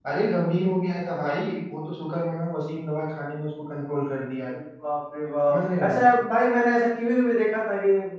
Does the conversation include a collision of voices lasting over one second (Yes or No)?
No